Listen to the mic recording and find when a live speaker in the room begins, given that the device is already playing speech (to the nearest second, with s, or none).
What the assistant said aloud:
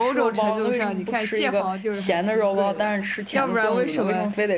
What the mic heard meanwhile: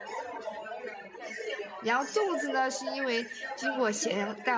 2 s